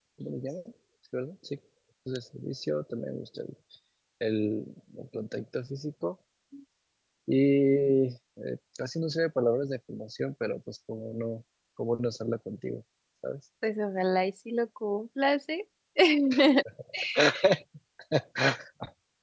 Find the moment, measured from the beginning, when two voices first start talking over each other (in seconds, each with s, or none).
none